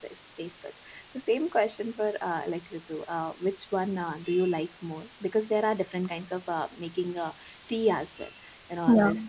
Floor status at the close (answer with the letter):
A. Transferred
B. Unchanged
B